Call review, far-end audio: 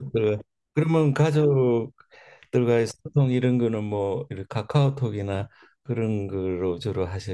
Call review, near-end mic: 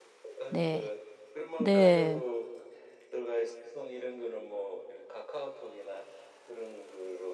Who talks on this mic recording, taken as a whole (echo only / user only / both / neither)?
both